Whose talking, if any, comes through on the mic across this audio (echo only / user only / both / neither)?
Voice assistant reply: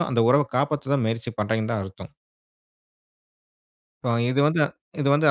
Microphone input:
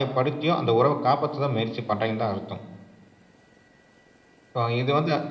echo only